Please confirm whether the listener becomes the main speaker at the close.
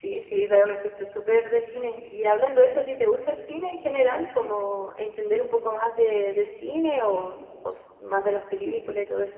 Yes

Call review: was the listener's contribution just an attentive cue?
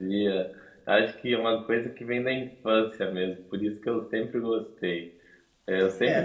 Yes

